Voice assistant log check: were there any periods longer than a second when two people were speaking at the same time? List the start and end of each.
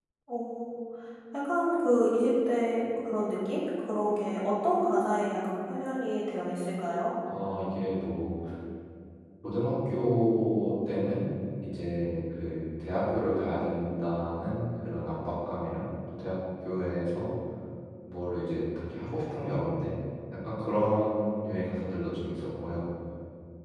none

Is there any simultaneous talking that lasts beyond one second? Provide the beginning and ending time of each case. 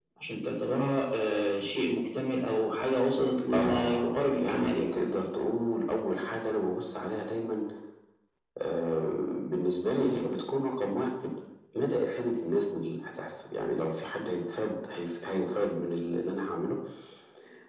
3.5-5.0

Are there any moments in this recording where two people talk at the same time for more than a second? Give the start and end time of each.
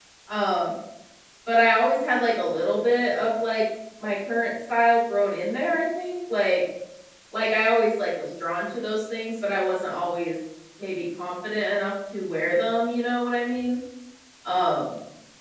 none

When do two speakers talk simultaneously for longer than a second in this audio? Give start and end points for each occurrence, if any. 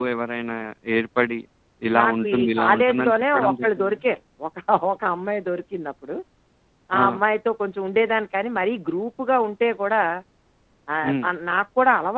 2.0-4.0

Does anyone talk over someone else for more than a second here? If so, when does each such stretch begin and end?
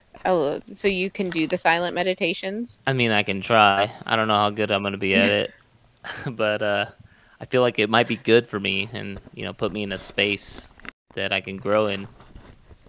none

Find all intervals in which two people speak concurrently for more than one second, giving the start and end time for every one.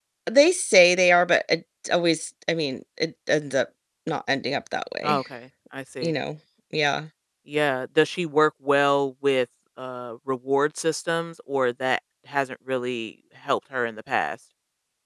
none

